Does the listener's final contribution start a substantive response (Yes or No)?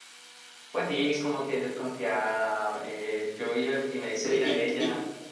Yes